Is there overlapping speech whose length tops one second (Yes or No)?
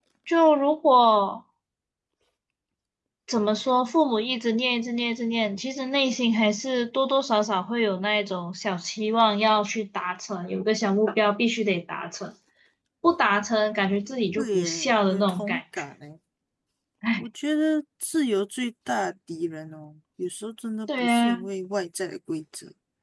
Yes